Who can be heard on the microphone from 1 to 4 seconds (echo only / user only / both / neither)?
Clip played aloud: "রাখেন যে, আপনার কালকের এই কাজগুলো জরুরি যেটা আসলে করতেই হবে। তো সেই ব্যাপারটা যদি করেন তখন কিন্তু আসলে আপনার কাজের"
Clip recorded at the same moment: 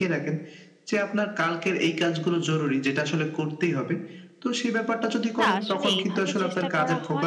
echo only